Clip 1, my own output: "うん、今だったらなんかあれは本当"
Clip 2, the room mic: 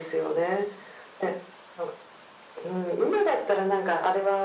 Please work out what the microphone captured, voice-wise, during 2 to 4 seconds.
echo only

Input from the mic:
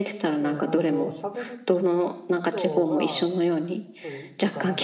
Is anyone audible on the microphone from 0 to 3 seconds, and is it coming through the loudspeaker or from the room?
both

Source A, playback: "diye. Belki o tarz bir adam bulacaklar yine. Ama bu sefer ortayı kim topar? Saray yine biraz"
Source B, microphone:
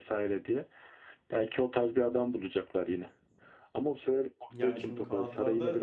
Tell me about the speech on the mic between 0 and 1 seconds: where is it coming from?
echo only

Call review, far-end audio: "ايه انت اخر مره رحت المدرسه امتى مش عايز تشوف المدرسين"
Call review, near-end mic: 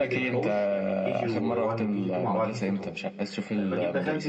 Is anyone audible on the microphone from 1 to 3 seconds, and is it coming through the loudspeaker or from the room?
both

